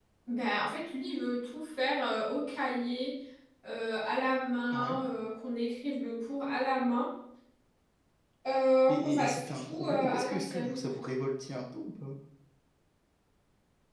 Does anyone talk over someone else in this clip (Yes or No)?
Yes